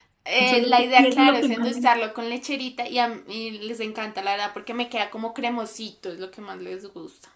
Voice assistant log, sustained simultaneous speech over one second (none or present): present